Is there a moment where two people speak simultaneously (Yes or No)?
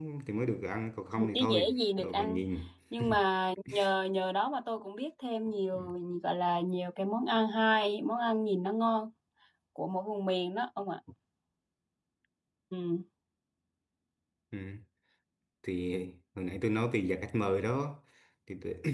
Yes